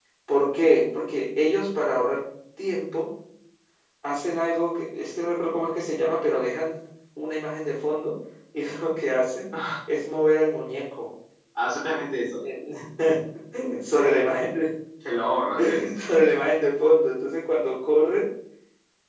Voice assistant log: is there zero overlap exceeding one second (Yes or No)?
Yes